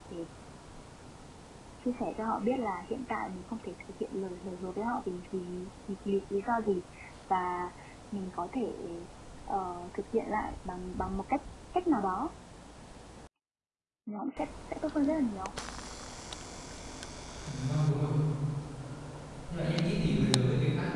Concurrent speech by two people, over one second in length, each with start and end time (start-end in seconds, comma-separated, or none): none